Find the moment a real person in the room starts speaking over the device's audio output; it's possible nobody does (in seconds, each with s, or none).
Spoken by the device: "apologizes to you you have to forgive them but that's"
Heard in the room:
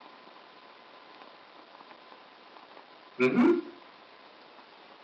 3.2 s